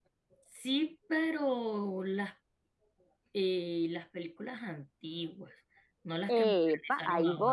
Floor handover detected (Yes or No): Yes